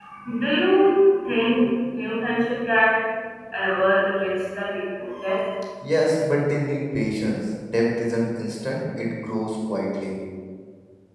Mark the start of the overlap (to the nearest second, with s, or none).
none